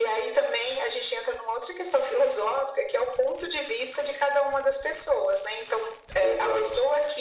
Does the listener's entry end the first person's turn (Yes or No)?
No